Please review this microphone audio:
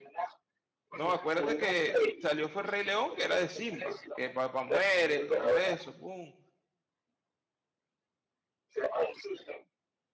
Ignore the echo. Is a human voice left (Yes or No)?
Yes